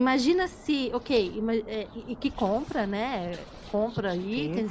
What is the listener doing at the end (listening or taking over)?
listening